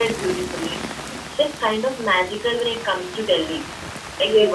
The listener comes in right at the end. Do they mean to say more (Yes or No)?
Yes